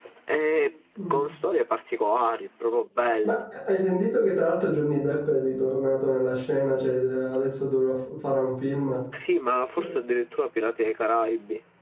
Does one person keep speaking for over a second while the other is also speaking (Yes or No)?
No